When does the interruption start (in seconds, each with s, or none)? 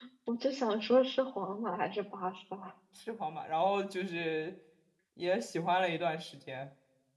none